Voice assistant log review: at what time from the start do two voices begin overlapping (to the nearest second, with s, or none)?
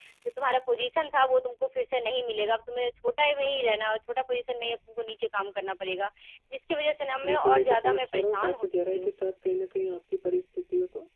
7 s